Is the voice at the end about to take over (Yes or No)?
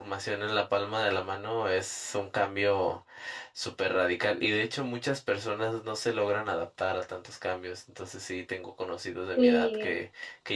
No